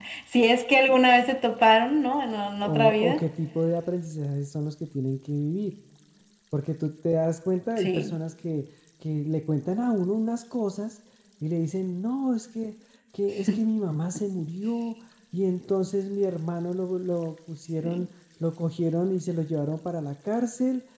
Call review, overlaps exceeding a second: none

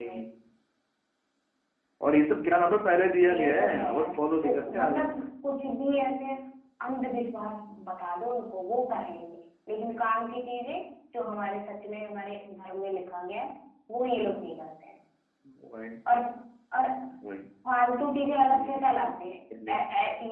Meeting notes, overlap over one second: present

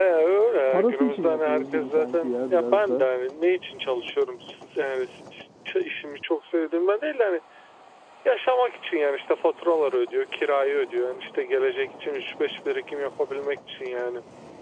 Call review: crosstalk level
present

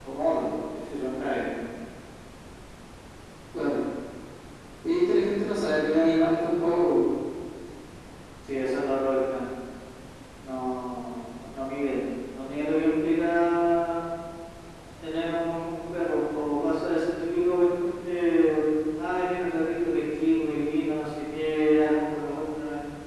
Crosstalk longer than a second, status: none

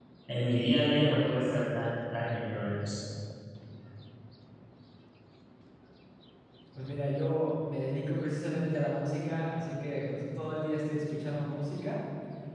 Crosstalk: none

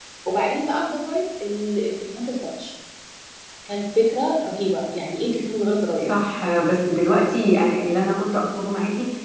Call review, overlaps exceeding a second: none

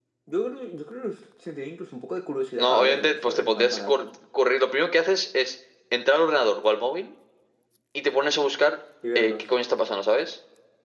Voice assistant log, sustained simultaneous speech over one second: present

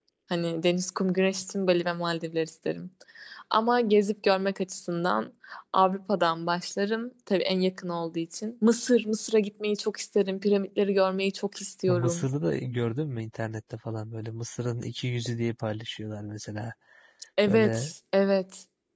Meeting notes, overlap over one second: none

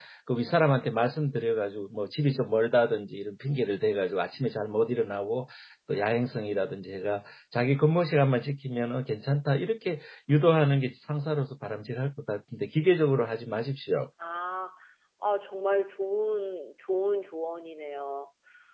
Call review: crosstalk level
none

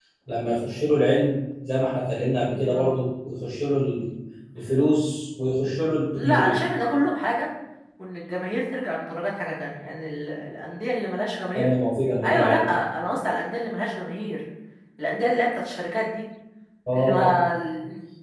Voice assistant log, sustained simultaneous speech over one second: none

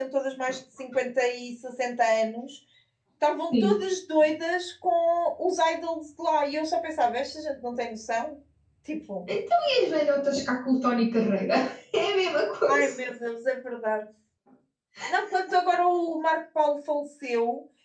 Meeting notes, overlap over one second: none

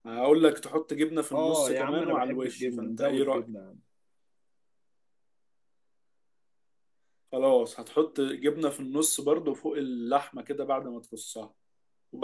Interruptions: present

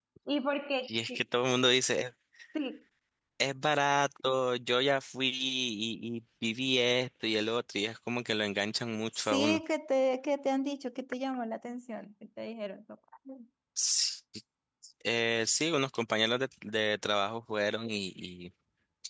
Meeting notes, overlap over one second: none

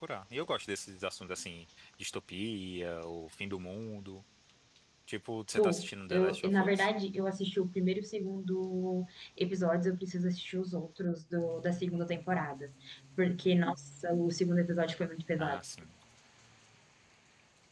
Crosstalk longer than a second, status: present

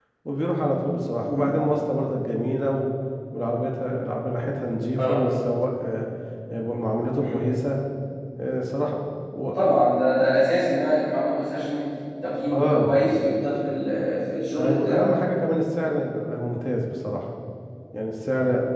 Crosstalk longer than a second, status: none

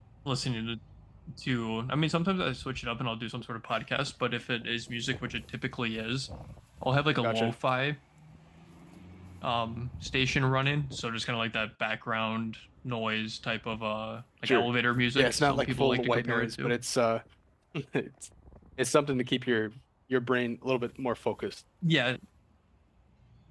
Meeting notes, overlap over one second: present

